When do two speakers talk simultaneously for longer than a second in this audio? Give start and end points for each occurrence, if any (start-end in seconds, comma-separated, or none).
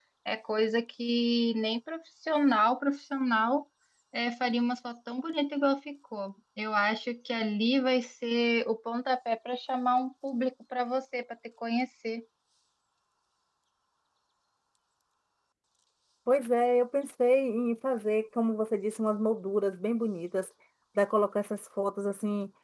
none